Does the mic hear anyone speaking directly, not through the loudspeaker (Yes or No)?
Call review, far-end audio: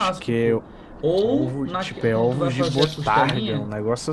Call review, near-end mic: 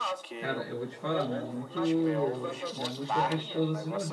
Yes